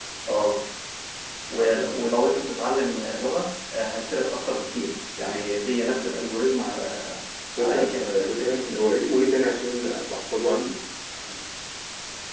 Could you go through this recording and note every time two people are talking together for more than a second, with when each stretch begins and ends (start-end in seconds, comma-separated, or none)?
7.6-8.8